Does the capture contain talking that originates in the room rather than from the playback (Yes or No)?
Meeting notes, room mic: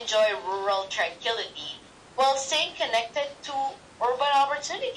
No